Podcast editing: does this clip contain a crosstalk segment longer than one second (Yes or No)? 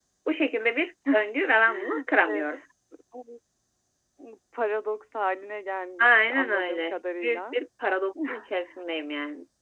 Yes